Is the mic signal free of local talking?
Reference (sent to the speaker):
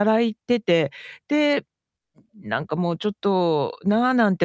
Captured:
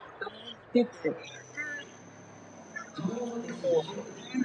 No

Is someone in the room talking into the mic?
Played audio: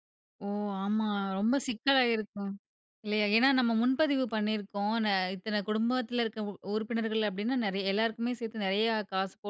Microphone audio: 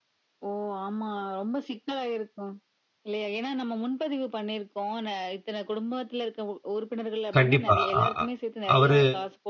Yes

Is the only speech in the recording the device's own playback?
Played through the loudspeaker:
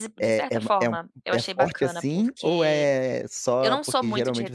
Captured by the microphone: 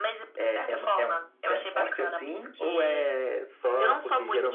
Yes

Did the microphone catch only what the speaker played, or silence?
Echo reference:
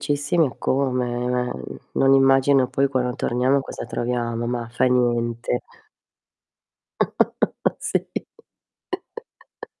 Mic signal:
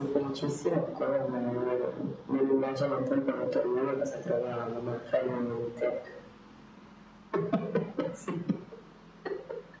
Yes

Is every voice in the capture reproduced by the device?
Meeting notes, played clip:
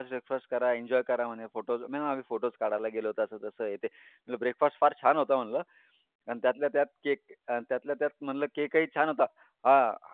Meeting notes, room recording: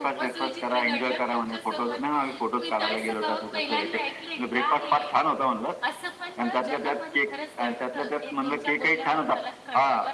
No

